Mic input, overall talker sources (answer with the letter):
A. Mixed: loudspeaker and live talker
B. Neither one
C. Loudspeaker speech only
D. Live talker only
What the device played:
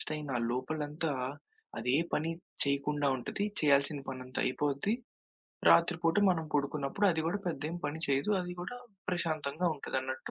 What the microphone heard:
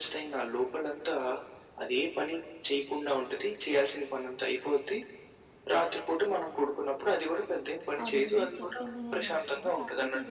A